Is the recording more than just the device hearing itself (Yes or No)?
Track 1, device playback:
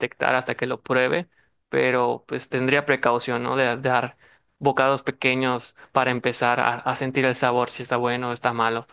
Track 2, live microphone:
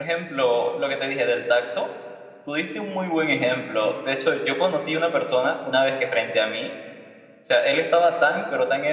Yes